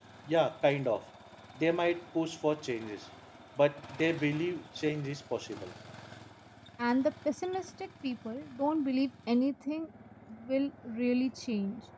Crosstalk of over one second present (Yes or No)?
No